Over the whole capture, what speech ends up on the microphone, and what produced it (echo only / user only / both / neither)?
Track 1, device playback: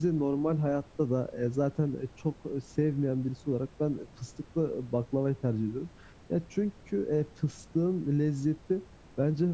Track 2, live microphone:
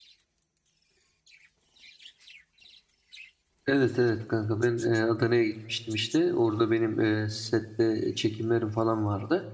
user only